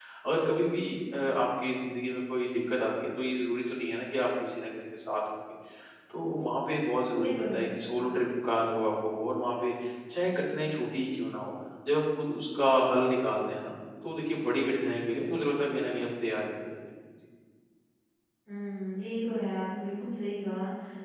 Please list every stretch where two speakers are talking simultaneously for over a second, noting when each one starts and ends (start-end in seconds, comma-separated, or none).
none